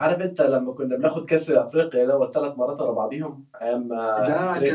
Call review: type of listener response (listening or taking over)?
taking over